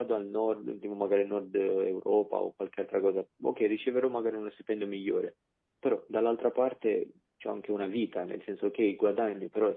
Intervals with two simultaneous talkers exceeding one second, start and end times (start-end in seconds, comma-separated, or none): none